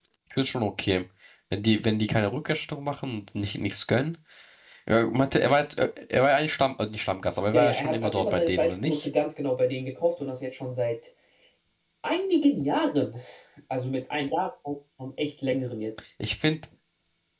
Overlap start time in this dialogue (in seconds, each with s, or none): 7.5 s